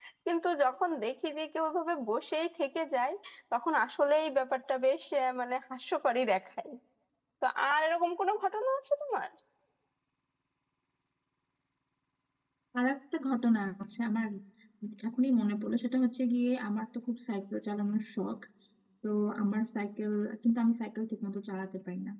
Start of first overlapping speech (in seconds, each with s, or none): none